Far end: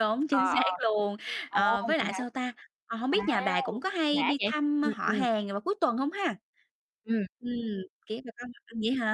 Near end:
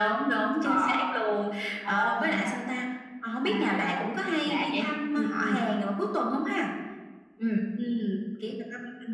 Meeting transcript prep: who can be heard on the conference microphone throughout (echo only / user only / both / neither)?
echo only